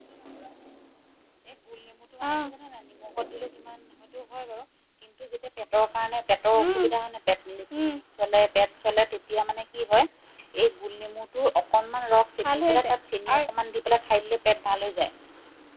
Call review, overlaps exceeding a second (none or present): none